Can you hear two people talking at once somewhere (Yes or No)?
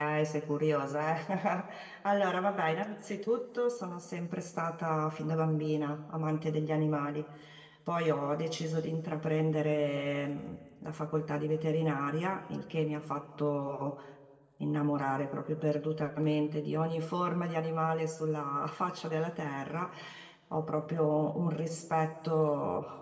No